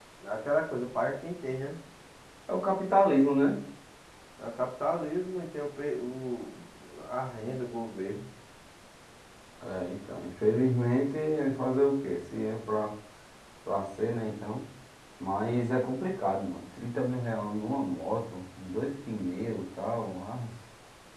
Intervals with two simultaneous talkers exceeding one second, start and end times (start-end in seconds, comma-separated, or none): none